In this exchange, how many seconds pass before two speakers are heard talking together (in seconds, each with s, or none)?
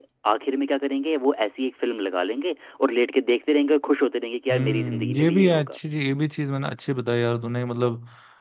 4.5 s